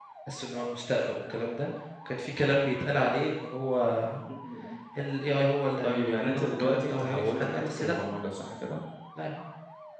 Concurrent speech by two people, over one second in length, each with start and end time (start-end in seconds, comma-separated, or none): 5.8-8.0